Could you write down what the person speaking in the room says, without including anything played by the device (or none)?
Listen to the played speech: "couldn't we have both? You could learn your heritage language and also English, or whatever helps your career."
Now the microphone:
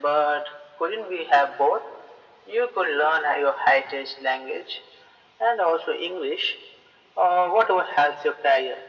none